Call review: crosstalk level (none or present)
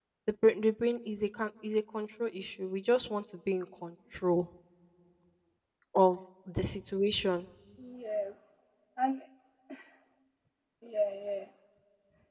none